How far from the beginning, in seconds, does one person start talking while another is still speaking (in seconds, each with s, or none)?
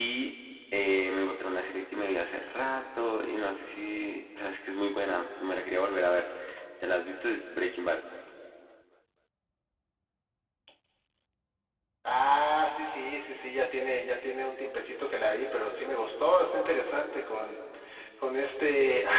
none